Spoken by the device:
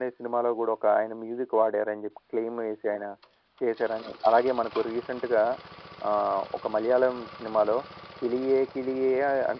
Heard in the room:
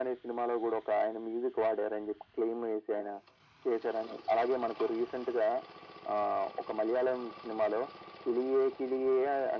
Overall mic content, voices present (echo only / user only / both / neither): echo only